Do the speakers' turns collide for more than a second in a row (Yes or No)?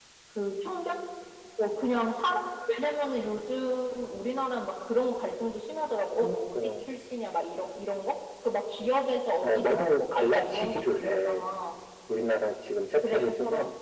Yes